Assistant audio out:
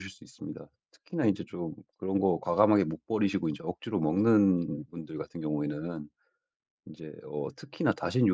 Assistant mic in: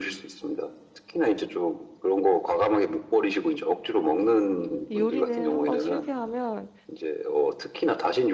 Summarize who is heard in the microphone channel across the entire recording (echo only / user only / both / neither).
both